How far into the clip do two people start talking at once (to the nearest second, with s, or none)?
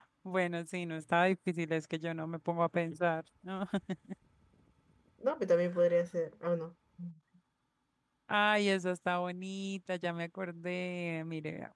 none